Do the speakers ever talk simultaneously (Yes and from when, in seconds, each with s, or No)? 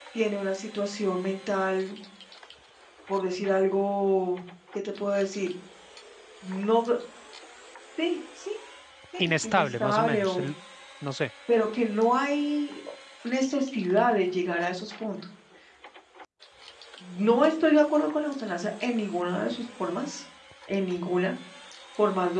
Yes, from 9.2 s